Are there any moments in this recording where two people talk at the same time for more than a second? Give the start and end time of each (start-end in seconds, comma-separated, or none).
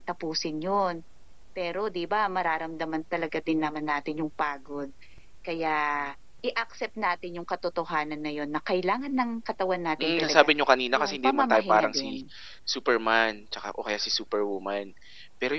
10.9-12.2